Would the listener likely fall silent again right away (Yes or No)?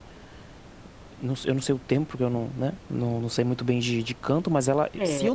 No